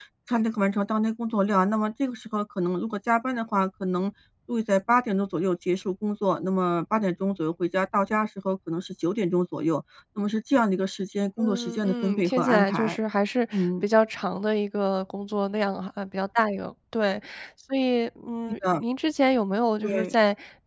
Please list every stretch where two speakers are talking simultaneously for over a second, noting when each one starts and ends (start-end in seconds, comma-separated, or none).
11.4-13.0